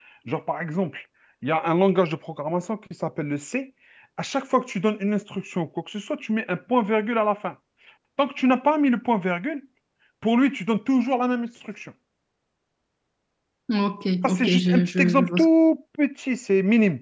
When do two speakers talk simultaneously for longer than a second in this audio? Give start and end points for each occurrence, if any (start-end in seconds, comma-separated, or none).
14.2-15.5